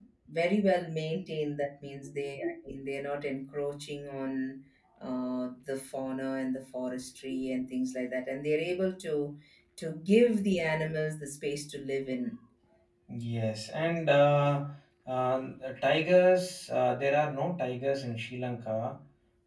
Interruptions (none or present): none